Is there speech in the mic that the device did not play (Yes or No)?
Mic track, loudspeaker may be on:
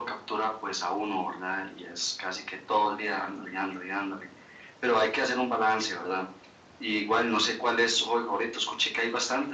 No